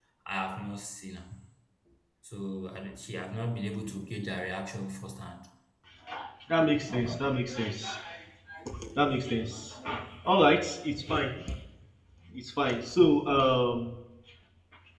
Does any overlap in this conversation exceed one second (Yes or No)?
No